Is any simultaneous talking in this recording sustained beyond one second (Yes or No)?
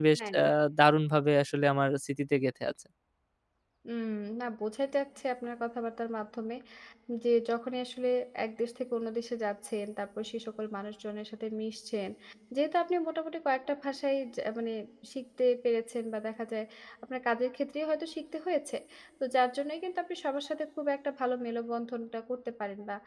No